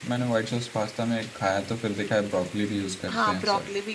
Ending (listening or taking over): taking over